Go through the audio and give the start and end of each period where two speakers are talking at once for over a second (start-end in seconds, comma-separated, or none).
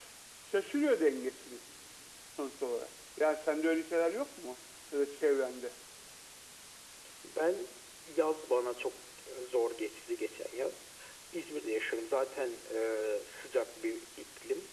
none